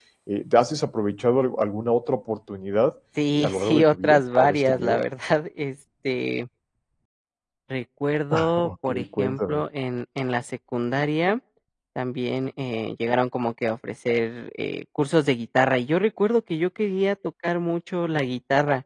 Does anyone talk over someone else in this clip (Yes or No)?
Yes